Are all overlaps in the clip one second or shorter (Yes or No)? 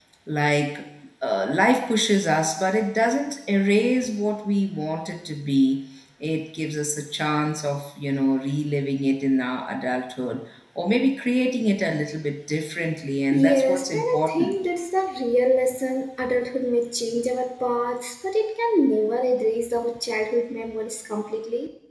No